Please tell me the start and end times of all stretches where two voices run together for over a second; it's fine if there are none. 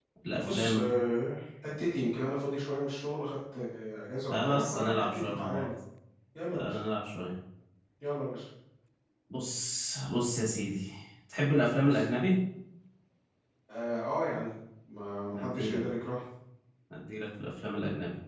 4.3-5.7

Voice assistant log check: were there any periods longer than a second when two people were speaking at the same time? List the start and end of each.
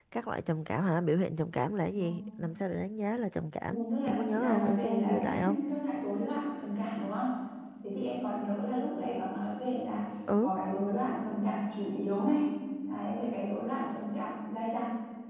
3.7-5.5

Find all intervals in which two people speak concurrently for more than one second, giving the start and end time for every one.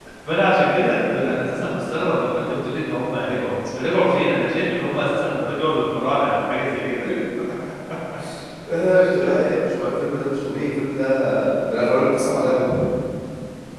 none

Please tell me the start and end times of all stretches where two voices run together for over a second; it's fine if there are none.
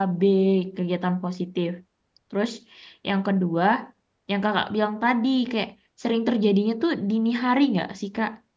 none

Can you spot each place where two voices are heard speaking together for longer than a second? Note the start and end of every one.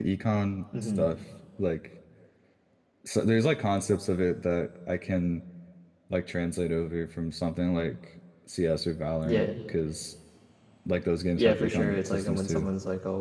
11.4-12.7

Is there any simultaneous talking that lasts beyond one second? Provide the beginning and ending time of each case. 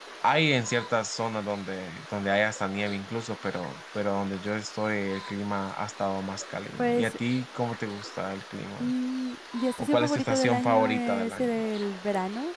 9.8-11.6

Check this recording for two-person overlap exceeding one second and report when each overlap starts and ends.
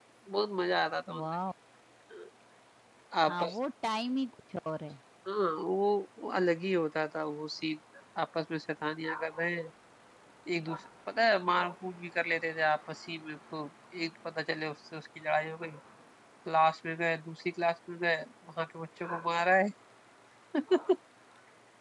none

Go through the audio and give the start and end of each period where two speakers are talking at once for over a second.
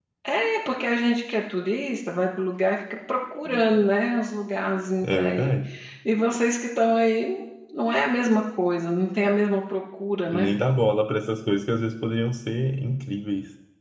none

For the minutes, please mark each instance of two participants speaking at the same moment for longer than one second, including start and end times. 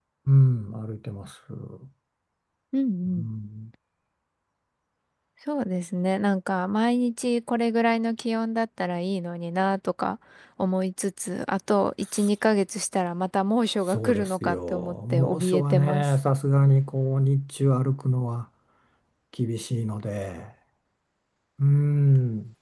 13.9-16.1

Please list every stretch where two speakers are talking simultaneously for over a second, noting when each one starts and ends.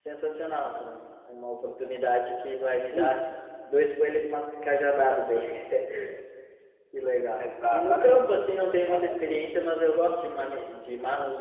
7.4-9.4

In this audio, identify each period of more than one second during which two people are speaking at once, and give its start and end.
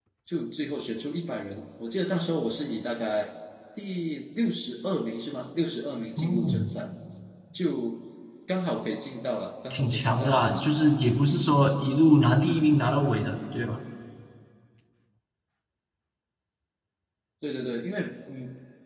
9.7-10.9

